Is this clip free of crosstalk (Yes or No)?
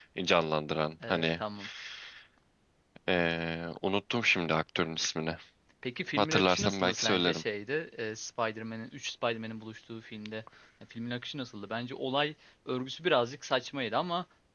No